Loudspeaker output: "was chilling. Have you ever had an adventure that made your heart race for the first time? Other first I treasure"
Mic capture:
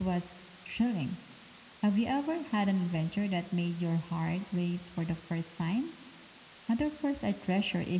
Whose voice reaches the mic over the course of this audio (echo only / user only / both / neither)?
echo only